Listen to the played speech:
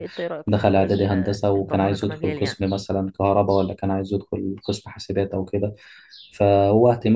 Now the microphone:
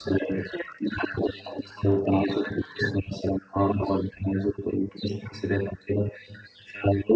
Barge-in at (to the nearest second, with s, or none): none